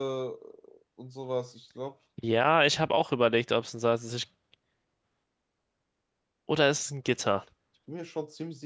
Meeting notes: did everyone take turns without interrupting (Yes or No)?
Yes